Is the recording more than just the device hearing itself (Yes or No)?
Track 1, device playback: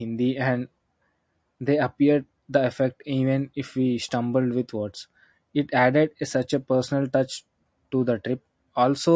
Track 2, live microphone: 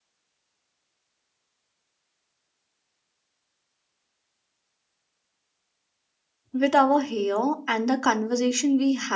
Yes